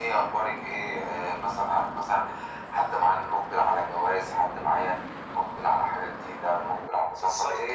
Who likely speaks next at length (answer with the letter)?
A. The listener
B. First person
B